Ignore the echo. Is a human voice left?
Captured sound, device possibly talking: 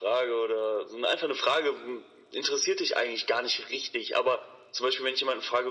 No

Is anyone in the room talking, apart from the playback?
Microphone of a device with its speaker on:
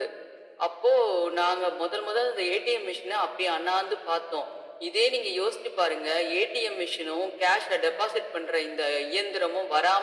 No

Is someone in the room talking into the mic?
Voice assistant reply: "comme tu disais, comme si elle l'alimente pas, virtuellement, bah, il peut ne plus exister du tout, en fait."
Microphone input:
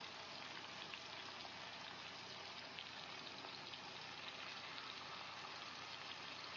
No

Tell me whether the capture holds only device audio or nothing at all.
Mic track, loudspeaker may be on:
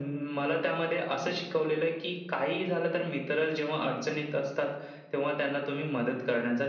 Yes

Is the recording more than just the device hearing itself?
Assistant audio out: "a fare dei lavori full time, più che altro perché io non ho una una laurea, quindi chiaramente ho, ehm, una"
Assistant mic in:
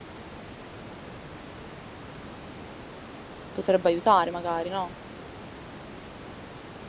Yes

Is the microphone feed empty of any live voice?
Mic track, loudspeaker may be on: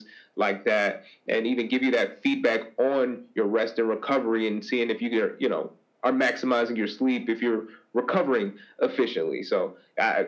Yes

